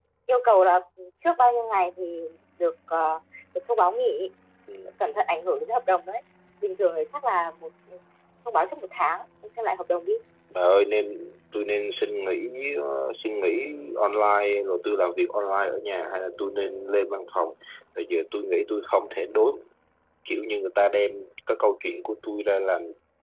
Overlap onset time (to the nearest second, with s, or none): none